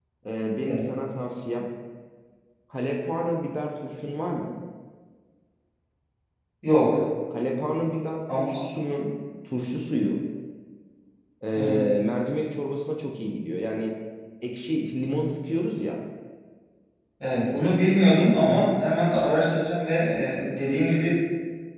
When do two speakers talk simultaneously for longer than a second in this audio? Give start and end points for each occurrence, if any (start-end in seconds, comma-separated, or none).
none